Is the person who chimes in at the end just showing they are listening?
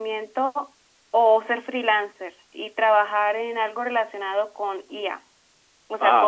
Yes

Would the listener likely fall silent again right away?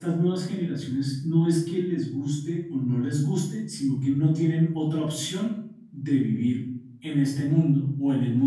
Yes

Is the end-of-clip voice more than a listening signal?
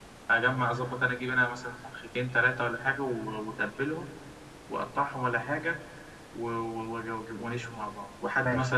No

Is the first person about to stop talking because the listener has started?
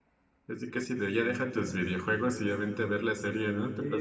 Yes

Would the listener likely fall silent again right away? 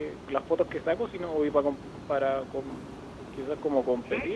Yes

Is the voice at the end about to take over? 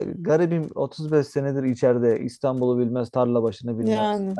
No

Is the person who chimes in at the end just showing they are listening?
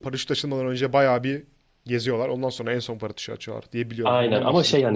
No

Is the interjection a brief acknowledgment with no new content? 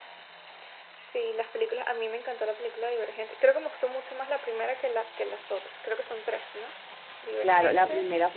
No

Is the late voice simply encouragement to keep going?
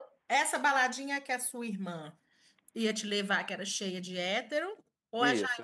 No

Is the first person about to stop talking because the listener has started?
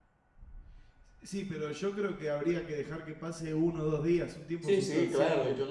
Yes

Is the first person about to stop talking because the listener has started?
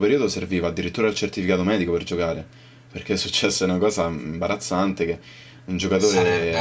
No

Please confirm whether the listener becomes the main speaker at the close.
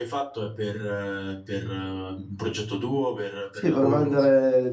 Yes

